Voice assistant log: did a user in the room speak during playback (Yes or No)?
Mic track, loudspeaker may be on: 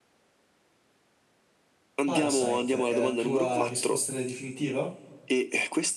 Yes